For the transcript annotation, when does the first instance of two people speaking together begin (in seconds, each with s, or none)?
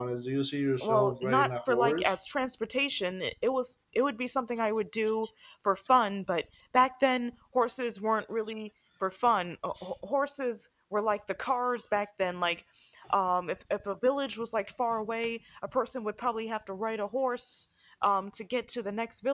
0.8 s